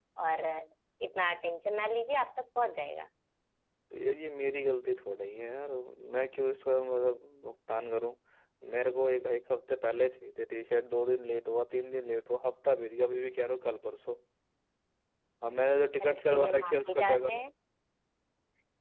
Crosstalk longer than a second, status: present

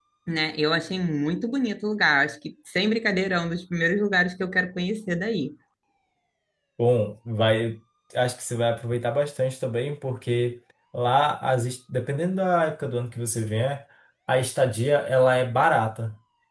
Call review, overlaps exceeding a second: none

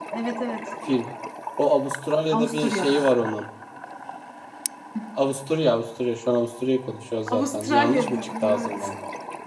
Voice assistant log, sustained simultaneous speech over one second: present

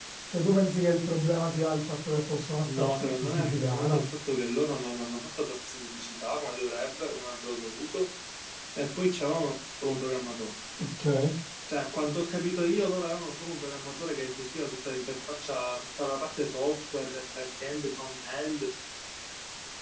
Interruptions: present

